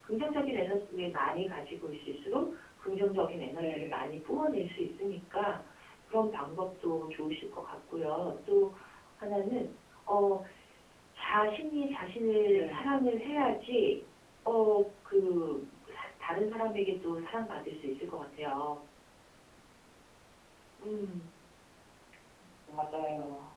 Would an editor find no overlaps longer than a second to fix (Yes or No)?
Yes